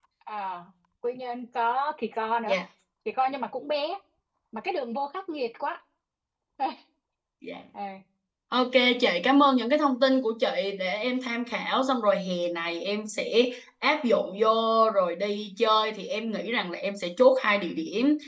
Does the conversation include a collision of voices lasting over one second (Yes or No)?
No